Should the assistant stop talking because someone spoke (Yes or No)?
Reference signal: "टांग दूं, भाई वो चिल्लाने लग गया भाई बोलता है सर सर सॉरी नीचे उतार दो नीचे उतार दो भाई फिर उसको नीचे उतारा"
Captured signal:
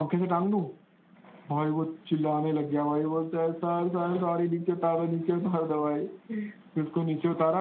No